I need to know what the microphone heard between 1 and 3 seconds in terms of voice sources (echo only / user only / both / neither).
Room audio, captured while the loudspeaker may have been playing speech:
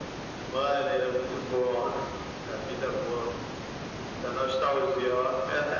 echo only